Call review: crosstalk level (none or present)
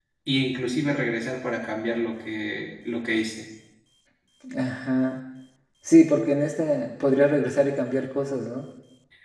none